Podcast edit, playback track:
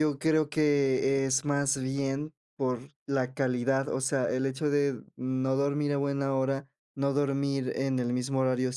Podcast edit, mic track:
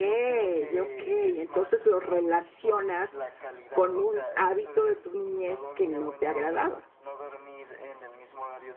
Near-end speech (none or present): present